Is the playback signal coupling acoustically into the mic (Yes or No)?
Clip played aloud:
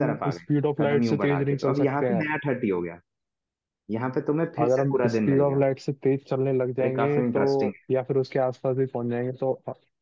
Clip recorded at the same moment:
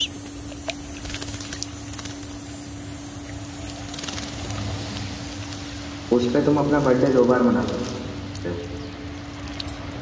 No